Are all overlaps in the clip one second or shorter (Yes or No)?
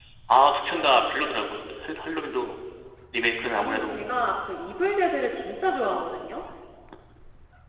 Yes